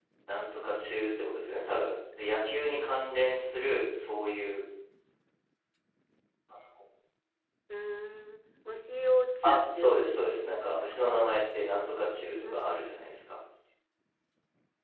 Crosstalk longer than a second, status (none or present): present